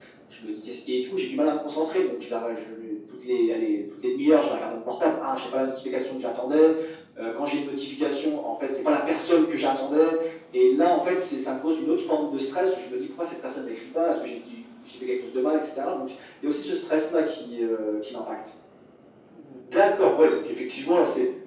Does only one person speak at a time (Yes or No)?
Yes